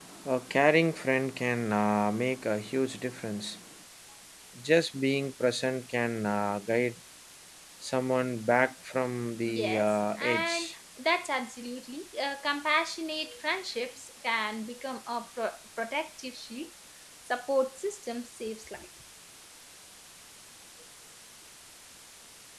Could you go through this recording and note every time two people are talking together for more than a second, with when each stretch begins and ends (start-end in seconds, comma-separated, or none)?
9.5-10.7